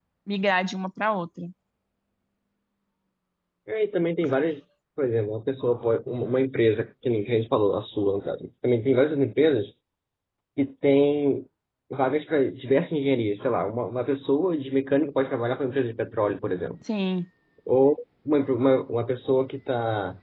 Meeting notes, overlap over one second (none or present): none